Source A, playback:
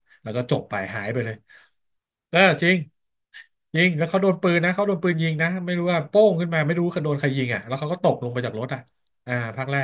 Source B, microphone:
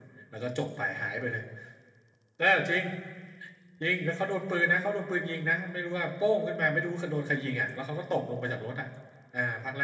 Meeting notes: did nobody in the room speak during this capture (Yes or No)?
Yes